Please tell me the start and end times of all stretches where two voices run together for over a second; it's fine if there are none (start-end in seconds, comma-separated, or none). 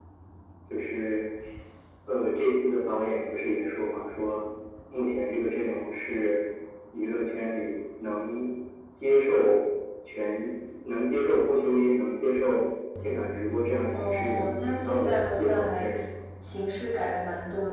14.0-15.9